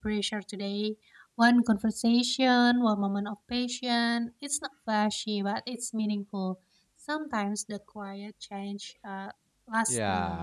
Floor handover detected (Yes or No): Yes